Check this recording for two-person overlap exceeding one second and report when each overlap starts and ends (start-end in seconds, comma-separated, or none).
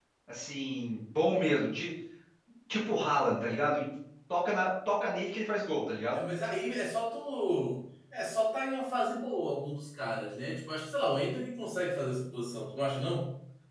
none